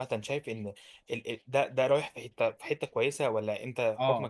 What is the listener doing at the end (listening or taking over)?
taking over